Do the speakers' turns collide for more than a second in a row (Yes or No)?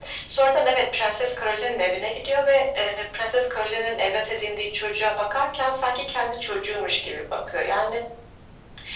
No